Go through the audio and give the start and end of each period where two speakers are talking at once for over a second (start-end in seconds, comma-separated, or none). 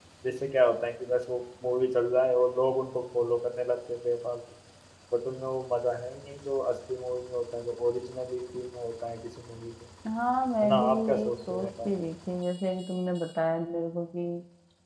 10.6-11.9